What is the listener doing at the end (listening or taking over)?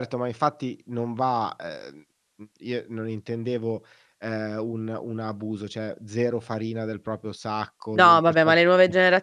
taking over